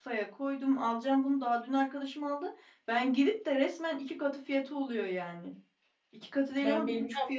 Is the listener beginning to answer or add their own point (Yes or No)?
No